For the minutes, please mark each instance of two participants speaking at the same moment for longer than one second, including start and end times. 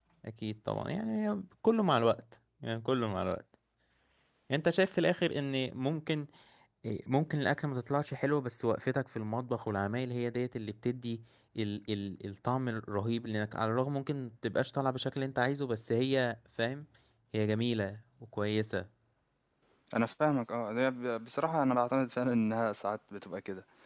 none

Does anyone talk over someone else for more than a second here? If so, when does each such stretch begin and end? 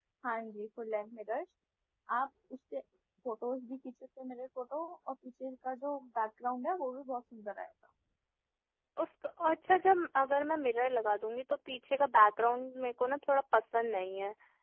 none

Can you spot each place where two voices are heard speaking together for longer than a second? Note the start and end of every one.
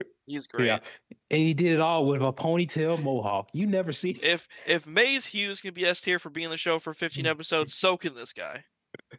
none

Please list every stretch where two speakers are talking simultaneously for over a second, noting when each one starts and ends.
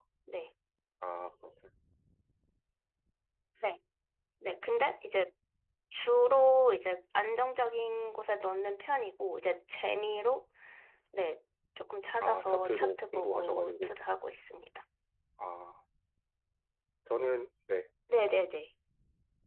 12.2-13.9

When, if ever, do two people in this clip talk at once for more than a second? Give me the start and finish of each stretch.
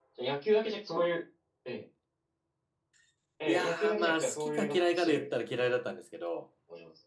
3.5-5.7

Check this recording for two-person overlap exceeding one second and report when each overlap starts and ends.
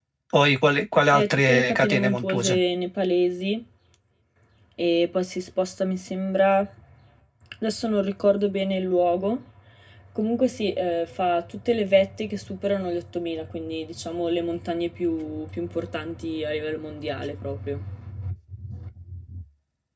1.1-2.6

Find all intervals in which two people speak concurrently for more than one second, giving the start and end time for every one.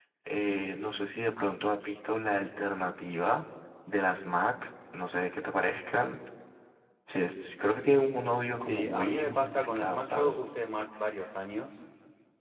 8.6-10.4

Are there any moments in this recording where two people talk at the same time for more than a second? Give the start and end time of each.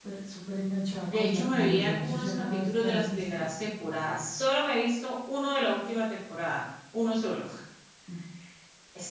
1.1-3.5

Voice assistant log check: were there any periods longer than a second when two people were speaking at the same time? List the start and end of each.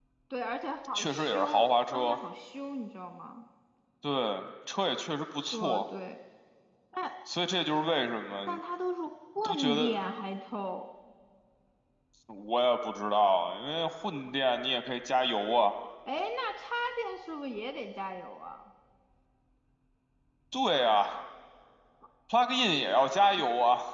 0.9-2.2

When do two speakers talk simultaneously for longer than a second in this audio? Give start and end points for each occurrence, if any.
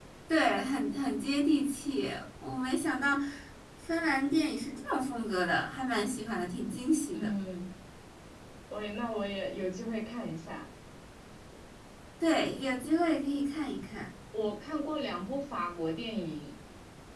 none

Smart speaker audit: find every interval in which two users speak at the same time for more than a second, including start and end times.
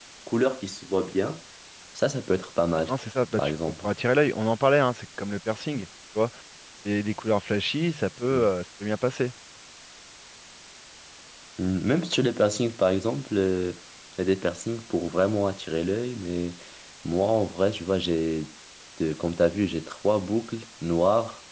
none

